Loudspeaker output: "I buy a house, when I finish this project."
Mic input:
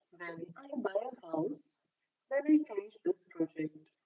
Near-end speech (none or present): none